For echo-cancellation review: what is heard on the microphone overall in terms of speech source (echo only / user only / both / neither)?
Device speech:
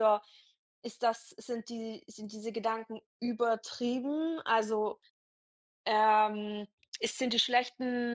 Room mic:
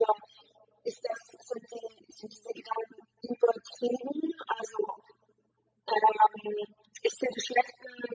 echo only